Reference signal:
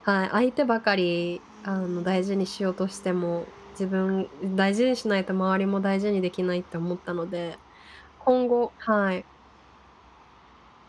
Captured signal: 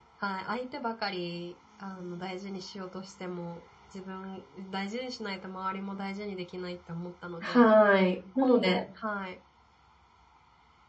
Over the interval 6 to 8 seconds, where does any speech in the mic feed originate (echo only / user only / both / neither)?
both